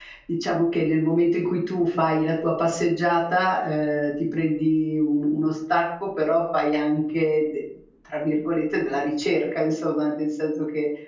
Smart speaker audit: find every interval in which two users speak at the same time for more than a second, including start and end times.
none

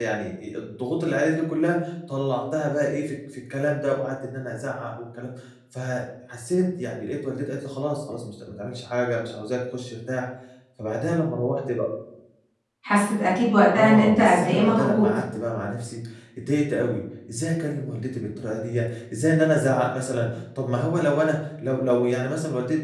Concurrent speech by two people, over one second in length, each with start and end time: 13.7-15.0

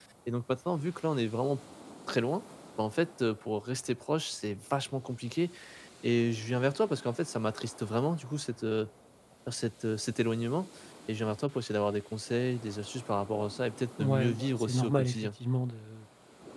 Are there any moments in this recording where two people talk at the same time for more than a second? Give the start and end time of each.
14.0-15.3

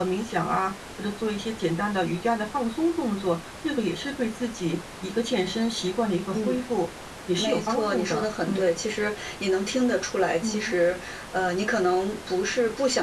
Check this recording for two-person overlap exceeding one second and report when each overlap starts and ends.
7.4-8.8

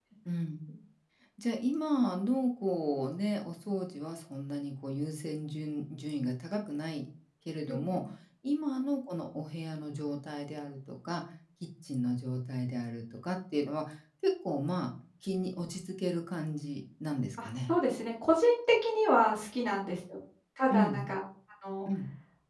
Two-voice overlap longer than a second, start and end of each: none

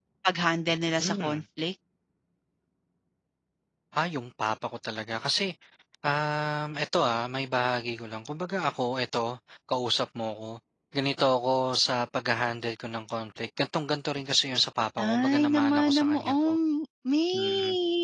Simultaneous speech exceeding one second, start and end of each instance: 15.0-16.6

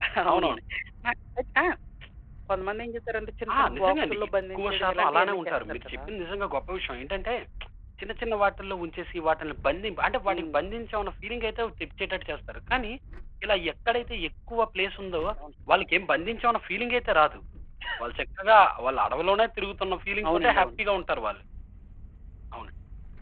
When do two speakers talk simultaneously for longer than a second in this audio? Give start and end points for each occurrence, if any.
3.5-6.0

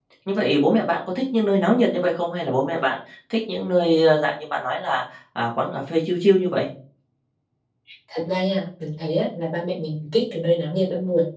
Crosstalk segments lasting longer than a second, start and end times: none

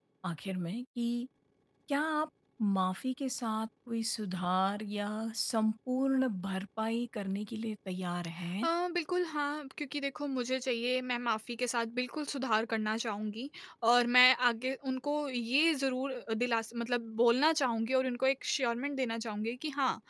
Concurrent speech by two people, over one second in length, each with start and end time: none

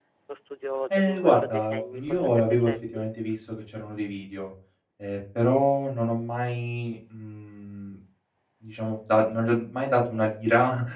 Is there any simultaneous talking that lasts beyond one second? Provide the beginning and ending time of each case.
0.9-3.1

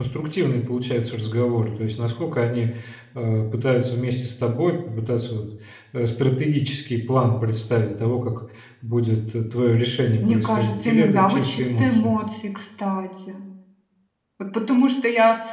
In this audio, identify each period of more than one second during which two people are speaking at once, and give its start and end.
10.2-12.2

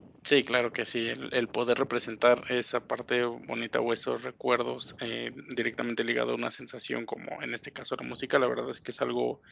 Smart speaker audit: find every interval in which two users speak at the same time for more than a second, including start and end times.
none

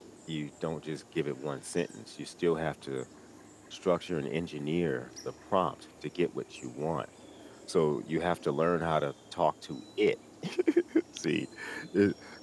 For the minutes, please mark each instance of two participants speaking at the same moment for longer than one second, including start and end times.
none

